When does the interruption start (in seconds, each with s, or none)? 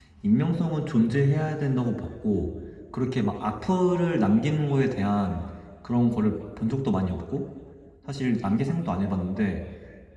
none